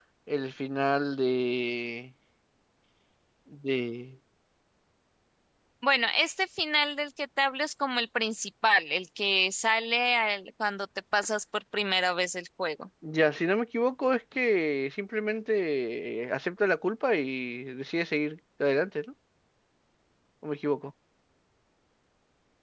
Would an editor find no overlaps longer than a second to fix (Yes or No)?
Yes